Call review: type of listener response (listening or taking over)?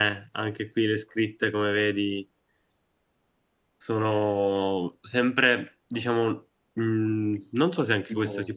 listening